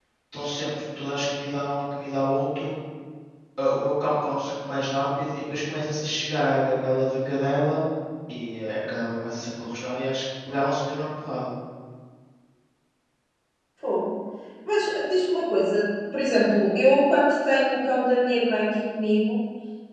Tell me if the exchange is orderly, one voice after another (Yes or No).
Yes